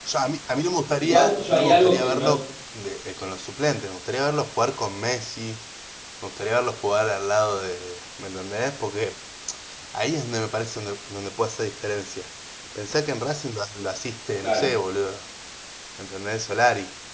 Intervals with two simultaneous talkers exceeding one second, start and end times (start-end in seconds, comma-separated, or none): 1.0-2.2